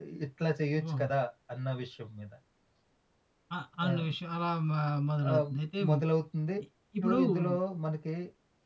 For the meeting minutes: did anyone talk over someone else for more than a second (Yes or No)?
No